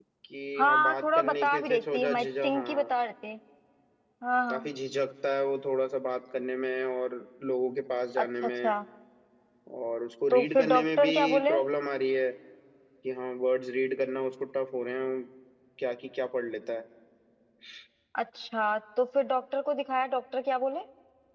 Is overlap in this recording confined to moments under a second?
No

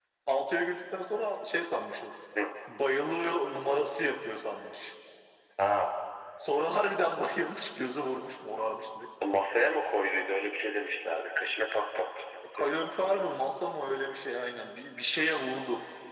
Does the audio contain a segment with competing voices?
No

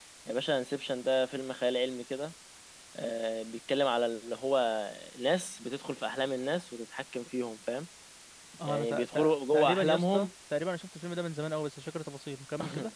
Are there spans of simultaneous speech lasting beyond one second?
Yes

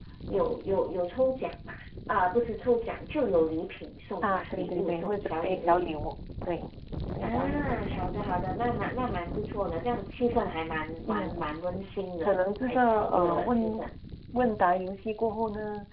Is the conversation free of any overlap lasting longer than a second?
No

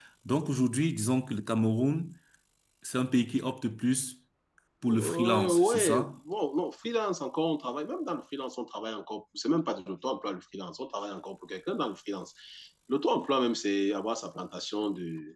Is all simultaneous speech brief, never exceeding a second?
No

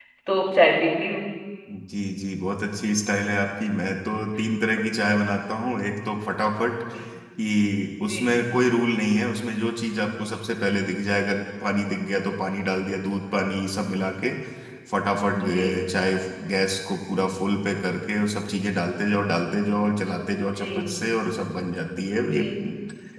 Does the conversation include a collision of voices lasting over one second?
No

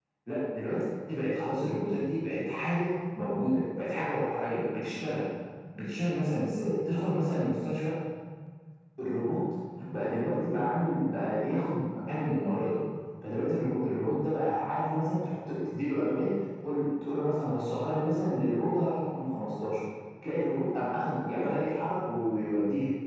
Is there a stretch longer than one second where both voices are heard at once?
No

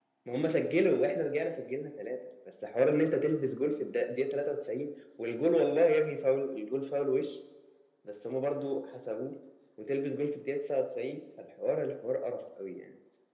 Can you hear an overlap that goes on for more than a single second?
No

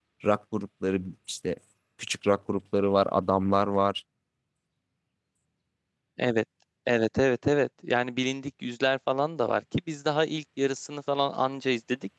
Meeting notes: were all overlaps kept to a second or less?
Yes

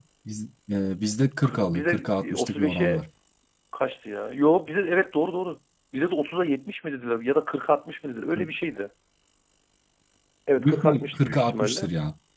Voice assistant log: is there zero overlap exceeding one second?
No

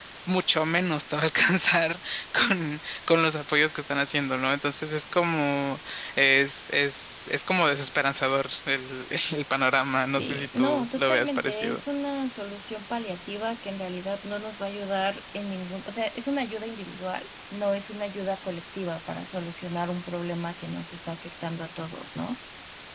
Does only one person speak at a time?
No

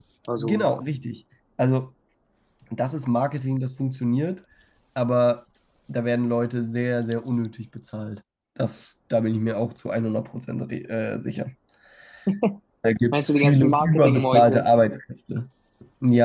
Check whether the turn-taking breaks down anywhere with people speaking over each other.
Yes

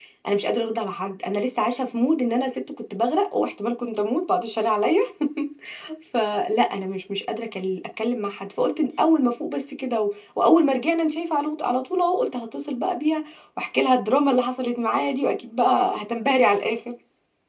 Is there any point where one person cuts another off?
No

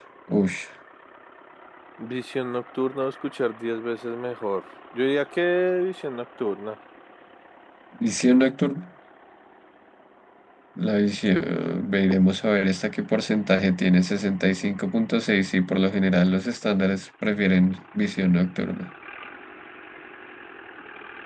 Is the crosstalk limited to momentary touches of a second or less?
Yes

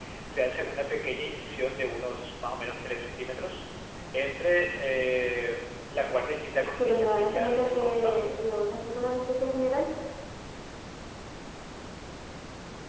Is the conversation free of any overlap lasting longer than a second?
No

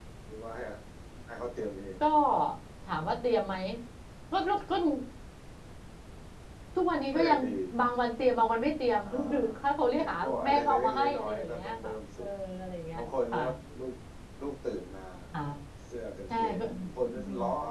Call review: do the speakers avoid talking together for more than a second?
No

